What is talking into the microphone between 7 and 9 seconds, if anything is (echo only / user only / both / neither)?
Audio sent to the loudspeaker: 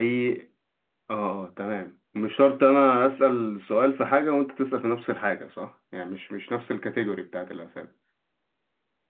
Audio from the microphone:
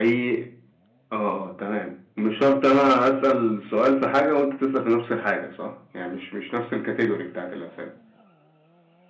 echo only